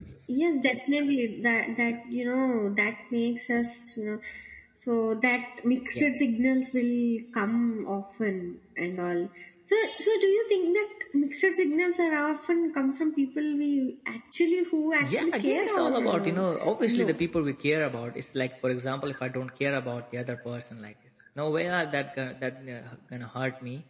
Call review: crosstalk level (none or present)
present